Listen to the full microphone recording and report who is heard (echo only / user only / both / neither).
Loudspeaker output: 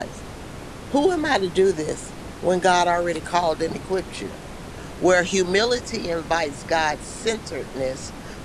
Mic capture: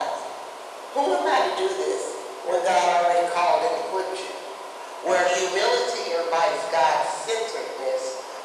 echo only